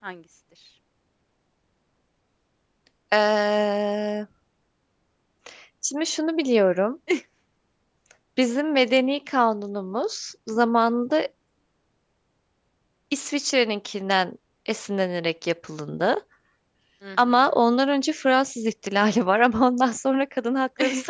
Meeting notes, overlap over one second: none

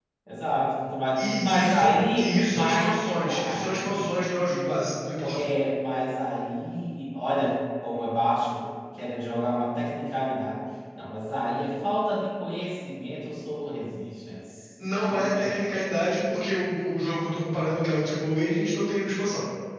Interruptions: present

